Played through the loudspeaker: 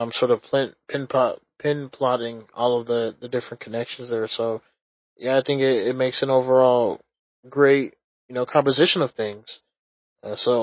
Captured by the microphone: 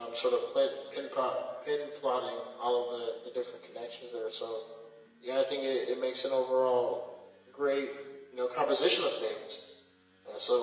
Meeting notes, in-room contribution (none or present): none